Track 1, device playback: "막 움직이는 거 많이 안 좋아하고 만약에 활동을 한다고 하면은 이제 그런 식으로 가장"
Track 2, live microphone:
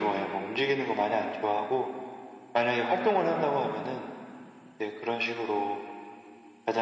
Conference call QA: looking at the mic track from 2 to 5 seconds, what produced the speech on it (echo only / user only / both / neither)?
echo only